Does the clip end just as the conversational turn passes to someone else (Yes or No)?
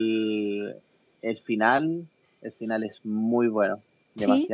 Yes